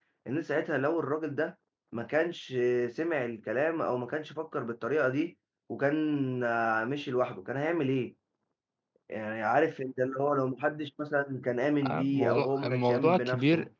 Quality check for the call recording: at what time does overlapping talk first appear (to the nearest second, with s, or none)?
12 s